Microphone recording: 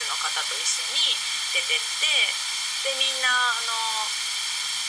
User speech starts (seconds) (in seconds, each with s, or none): none